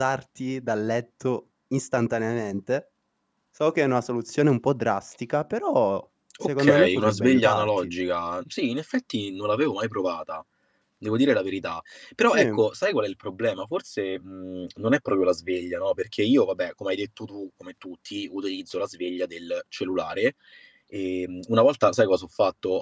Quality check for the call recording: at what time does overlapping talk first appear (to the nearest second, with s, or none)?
6 s